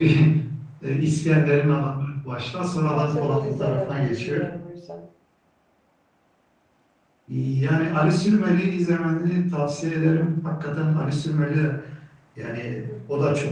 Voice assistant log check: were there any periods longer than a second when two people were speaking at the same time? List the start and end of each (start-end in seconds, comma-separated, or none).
2.9-4.5